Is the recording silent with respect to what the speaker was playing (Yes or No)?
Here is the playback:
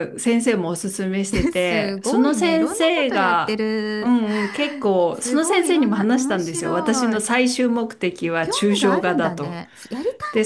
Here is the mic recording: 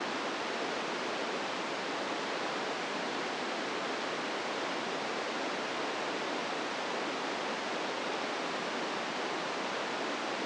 Yes